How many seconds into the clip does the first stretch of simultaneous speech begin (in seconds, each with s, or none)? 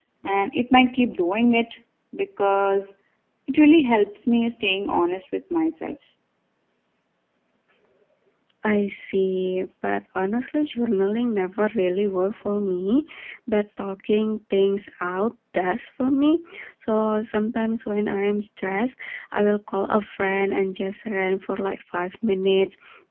none